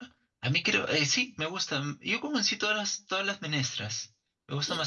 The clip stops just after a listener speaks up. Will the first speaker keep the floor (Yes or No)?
Yes